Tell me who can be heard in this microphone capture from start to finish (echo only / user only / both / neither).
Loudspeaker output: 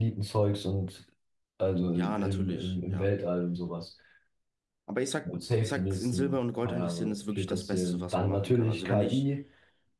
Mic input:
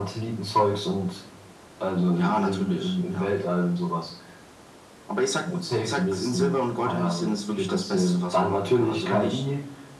echo only